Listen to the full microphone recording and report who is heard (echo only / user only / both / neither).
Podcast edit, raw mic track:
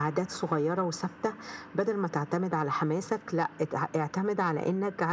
echo only